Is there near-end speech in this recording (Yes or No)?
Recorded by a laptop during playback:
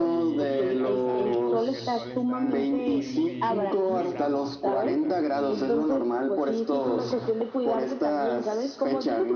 Yes